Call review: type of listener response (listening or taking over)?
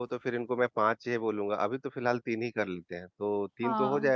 taking over